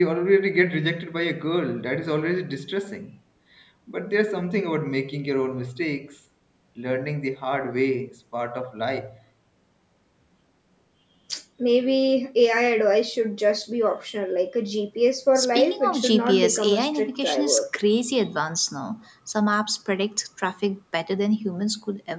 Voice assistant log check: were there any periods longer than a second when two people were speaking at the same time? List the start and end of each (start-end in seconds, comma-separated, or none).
15.4-17.6